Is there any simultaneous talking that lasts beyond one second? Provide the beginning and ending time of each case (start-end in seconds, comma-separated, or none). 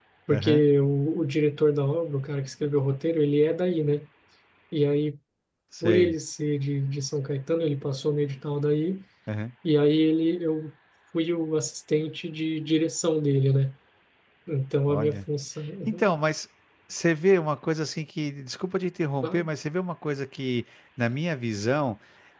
none